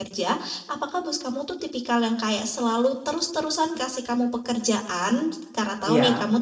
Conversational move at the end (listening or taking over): listening